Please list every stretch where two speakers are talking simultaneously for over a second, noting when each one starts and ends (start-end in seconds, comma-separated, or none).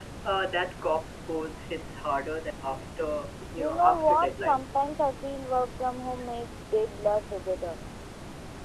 3.6-4.8